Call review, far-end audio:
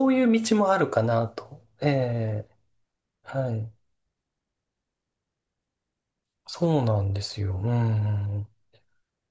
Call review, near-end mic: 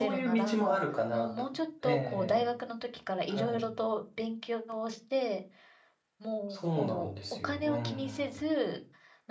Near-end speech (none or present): present